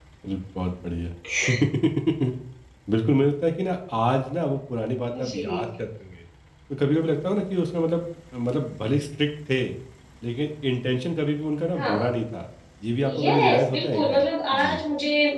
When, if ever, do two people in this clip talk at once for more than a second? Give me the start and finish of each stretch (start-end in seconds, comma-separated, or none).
13.1-14.8